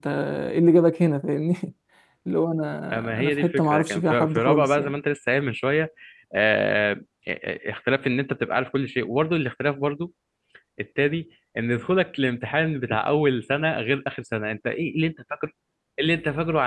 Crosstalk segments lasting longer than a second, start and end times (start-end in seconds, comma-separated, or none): 2.9-4.9